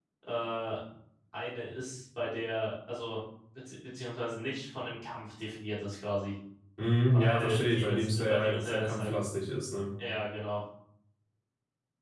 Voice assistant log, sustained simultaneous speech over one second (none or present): present